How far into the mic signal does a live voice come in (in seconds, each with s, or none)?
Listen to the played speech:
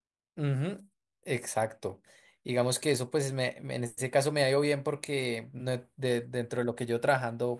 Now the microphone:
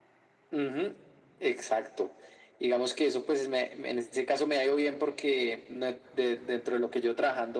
none